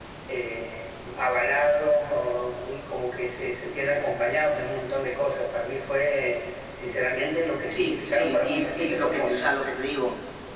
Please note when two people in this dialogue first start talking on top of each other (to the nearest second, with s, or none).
8 s